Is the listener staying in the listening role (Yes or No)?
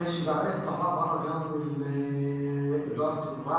Yes